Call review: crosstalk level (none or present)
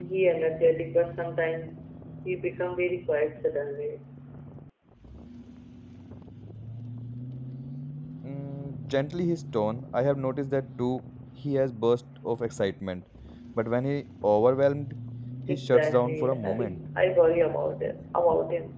present